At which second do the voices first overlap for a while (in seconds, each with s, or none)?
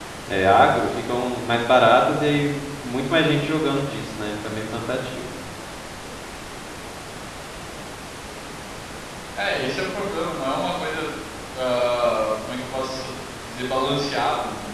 none